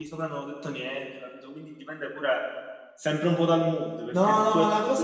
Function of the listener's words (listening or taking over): taking over